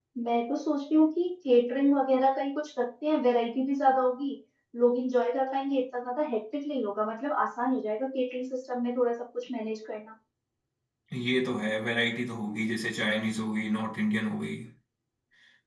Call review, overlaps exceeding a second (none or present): none